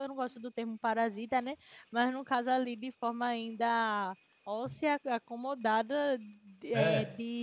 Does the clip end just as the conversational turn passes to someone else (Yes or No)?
No